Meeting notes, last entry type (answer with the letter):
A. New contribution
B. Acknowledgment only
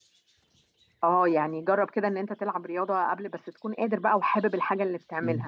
A